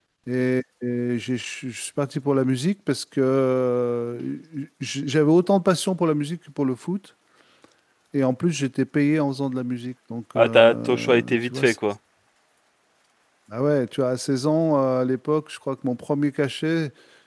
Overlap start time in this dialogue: 10.3 s

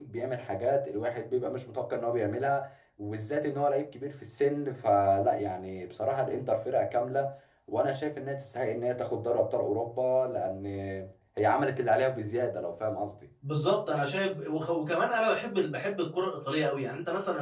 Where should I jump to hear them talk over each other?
none

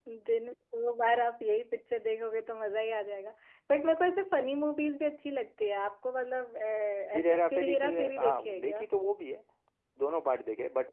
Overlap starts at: 7.2 s

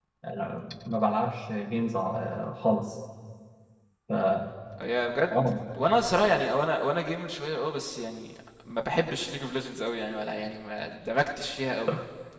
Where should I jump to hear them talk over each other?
none

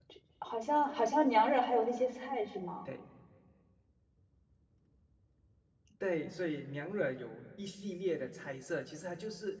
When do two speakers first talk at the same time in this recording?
none

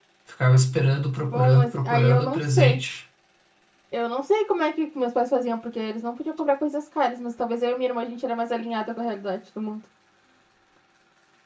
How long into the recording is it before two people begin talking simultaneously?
1.3 s

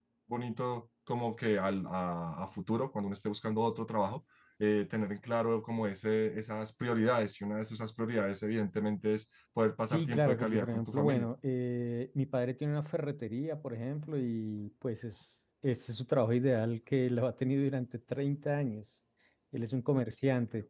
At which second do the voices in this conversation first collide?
9.8 s

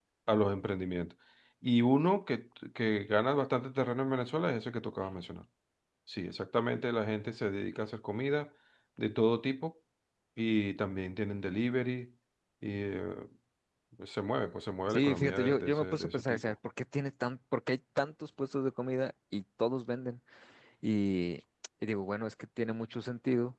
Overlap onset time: 14.9 s

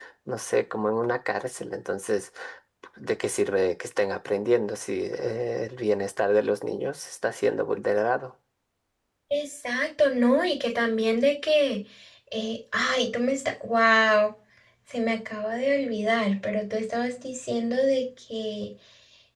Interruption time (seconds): none

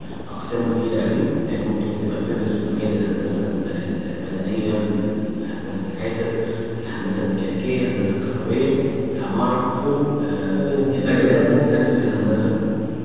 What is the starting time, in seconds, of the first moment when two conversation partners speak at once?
10.4 s

